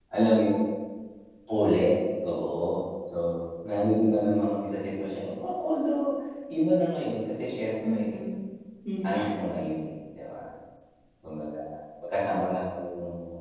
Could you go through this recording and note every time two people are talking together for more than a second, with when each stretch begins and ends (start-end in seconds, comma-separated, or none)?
none